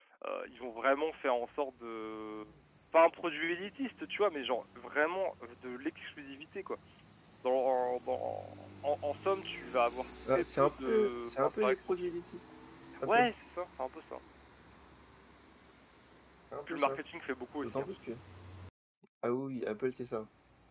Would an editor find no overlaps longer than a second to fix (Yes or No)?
No